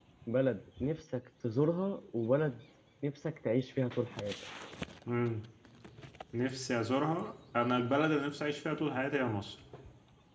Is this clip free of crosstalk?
Yes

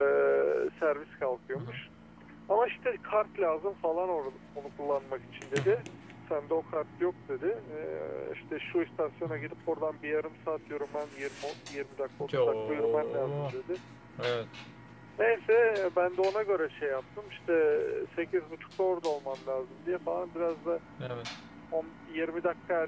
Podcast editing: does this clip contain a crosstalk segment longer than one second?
Yes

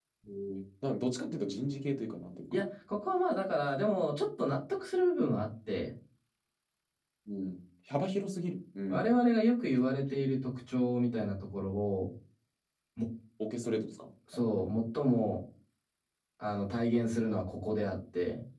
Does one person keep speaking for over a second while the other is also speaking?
No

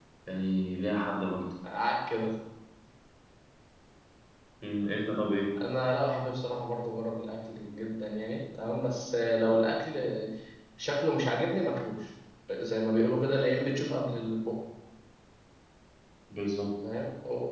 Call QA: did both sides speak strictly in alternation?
Yes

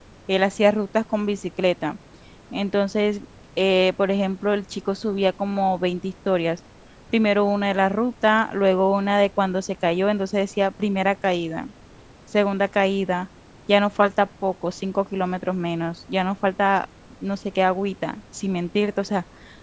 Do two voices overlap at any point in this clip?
No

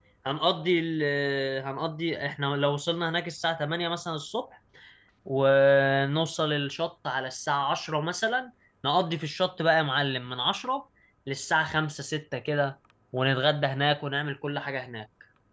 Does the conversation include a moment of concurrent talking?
No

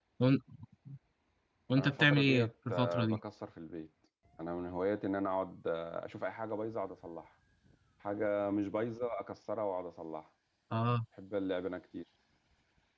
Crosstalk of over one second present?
Yes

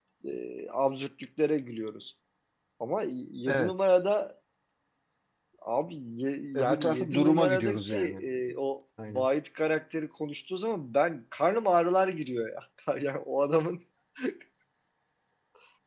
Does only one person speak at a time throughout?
No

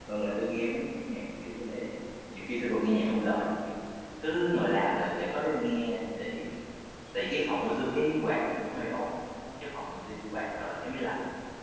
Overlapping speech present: No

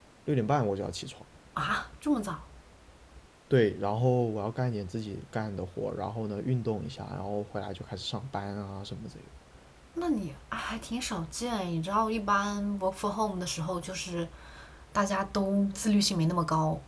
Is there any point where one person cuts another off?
No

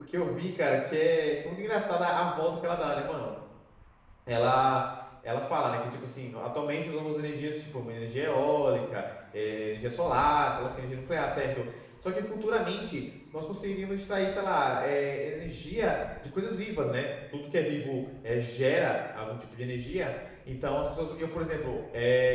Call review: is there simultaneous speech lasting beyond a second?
No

